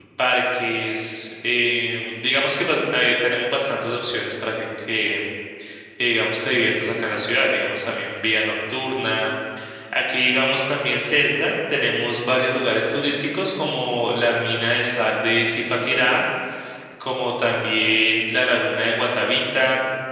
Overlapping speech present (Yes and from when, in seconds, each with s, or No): No